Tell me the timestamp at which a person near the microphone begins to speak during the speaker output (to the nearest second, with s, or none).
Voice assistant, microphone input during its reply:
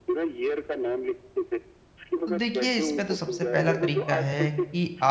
2 s